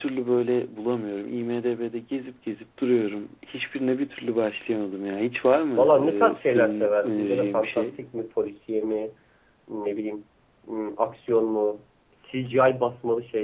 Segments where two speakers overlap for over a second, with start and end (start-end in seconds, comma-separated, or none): 5.8-7.9